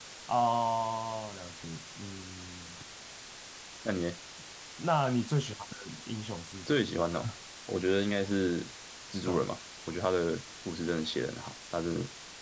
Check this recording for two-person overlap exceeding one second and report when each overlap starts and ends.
none

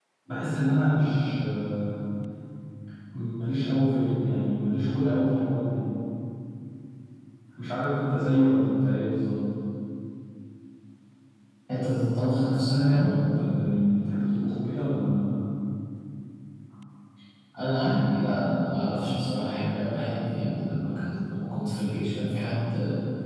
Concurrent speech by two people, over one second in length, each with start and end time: none

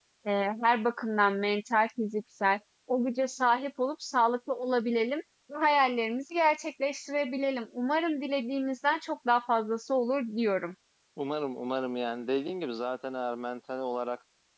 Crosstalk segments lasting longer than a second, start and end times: none

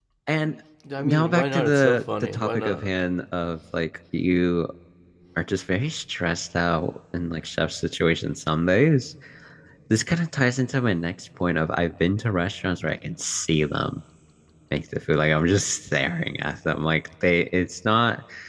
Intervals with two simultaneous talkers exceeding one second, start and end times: 1.0-2.9

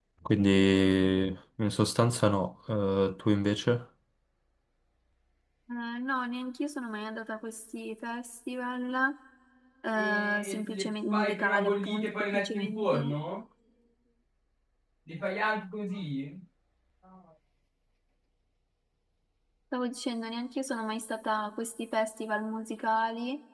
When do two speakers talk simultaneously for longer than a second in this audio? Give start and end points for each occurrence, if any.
10.0-13.1

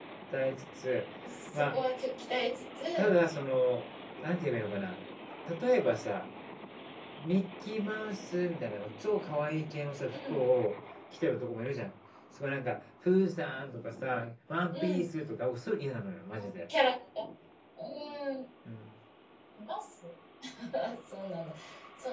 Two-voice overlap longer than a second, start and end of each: none

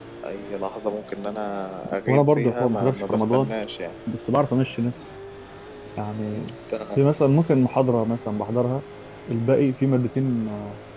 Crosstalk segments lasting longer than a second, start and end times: 2.1-3.5

